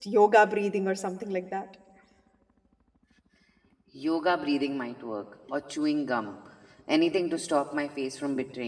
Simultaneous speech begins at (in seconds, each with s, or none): none